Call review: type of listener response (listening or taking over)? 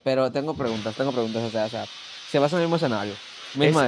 taking over